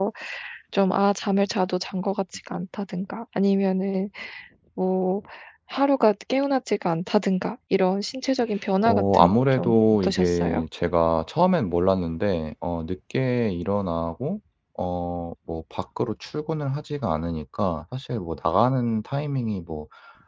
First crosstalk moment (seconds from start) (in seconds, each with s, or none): 8.8 s